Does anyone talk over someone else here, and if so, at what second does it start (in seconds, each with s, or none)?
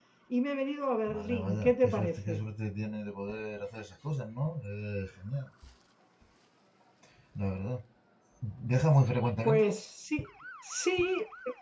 1.1 s